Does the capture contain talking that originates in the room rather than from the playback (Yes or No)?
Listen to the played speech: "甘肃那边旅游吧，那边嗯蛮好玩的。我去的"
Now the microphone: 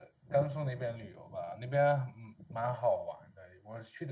No